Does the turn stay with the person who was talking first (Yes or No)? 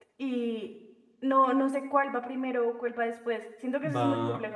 No